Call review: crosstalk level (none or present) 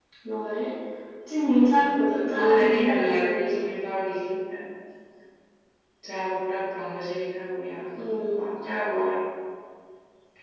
present